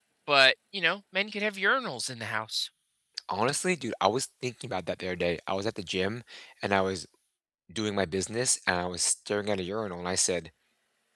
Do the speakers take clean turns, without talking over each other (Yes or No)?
Yes